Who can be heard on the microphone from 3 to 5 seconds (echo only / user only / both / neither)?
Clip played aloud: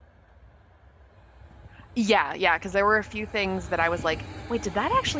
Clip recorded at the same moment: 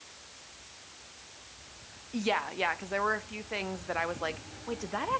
echo only